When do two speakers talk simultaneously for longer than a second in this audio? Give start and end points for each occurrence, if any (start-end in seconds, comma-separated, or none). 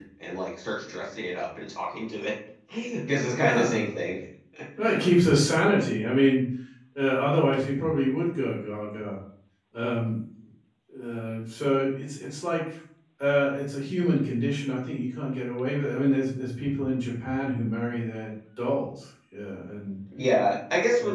none